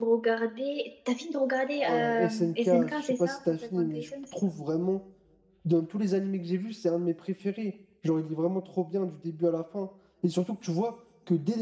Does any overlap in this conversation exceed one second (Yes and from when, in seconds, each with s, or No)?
Yes, from 1.8 s